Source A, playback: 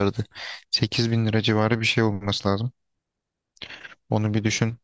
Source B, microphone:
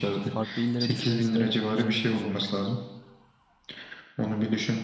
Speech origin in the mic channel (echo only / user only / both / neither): both